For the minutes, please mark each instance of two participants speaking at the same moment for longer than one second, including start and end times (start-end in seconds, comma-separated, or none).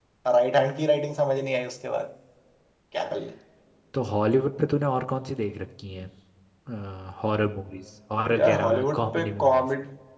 8.3-9.7